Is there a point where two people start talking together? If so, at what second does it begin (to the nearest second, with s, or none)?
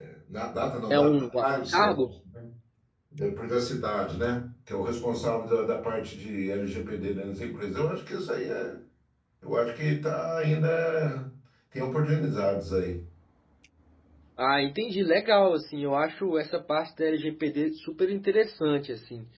1 s